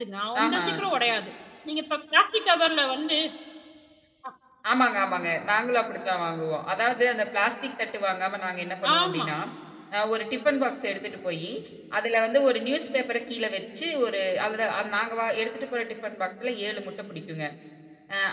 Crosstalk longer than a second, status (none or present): none